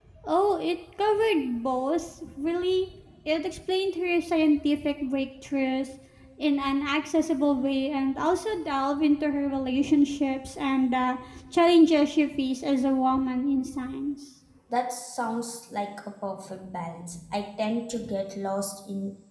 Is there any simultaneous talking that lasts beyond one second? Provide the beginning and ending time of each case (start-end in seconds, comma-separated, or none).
none